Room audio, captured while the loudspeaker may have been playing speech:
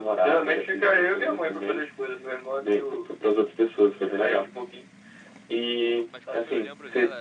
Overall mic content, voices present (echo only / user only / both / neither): both